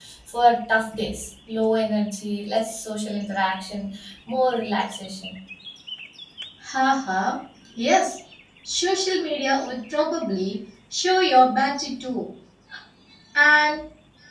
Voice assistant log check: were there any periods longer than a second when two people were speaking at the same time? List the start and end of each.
none

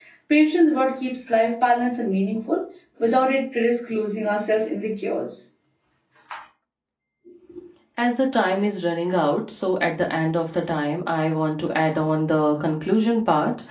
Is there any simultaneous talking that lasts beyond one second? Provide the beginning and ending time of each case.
none

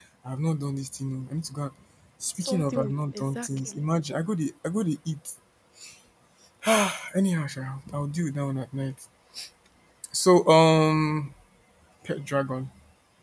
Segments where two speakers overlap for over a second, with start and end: 2.4-3.8

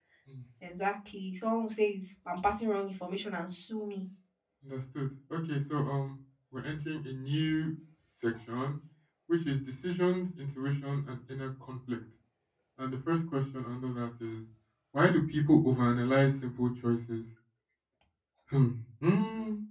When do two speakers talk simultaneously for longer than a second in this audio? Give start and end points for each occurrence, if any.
none

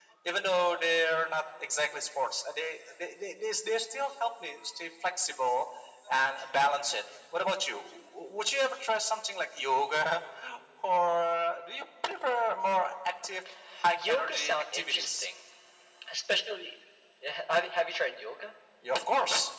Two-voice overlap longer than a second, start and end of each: 14.1-15.3

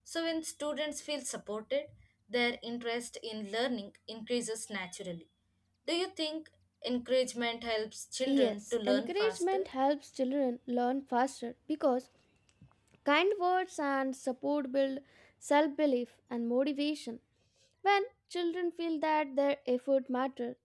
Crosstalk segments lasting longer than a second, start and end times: 8.3-9.7

